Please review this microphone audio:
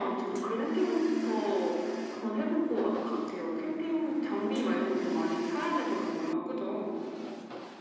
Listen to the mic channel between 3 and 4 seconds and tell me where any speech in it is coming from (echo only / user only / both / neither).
echo only